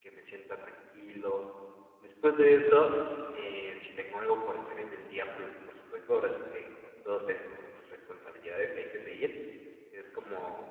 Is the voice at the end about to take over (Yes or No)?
No